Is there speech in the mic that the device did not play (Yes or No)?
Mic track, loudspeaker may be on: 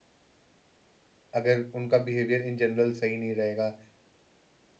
Yes